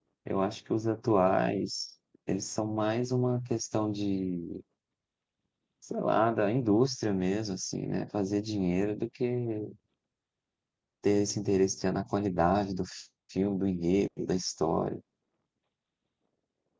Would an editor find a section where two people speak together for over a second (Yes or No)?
No